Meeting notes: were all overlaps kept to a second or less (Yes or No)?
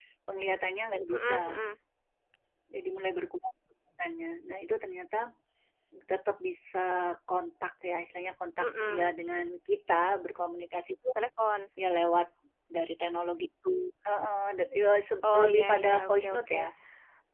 No